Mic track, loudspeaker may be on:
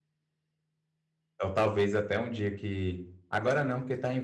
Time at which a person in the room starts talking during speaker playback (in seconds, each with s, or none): 1.4 s